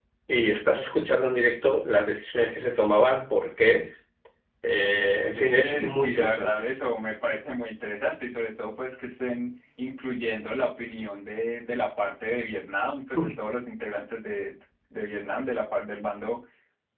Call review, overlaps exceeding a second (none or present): present